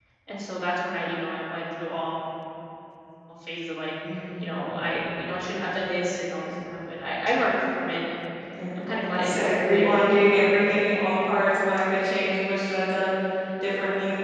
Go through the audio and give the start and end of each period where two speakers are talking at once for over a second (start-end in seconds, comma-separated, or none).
8.8-10.7